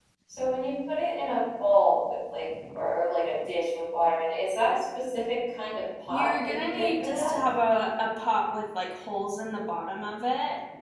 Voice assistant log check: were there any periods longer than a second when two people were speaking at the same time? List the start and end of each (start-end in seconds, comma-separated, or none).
6.1-7.4